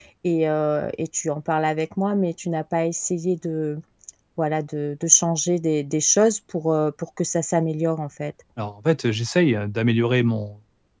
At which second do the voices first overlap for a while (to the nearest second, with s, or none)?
none